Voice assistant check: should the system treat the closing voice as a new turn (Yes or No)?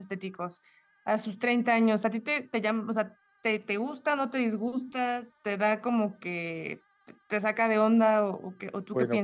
Yes